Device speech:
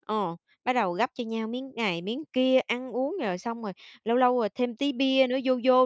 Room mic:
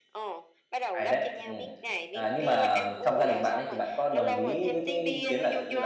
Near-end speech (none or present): present